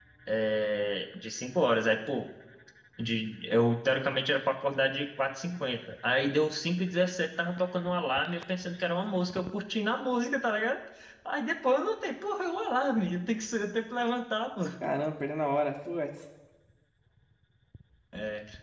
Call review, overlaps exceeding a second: none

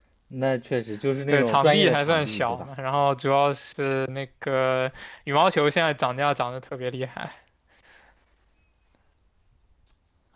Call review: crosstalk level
present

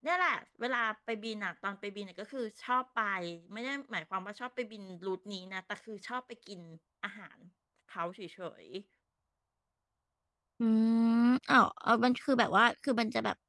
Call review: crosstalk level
none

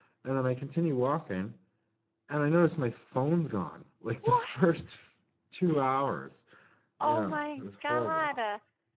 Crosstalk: present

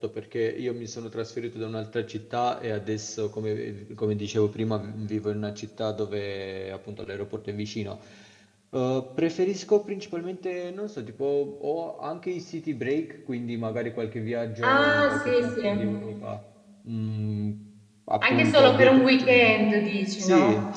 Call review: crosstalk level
present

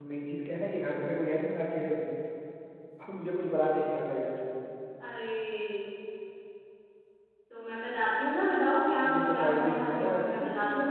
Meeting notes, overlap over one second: present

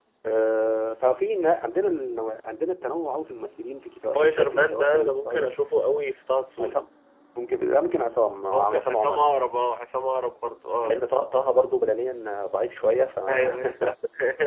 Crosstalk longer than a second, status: present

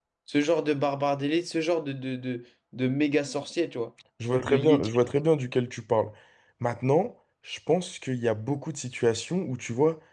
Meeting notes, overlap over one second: none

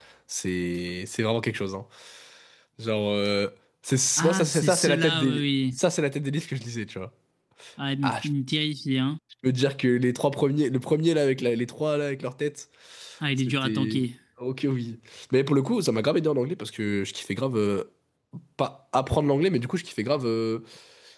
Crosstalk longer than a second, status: present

